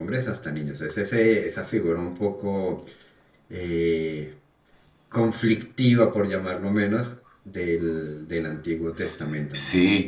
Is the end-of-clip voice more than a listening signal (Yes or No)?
Yes